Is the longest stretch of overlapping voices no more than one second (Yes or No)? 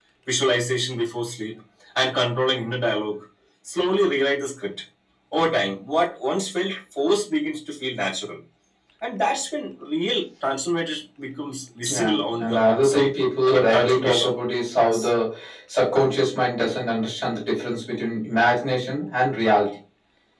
No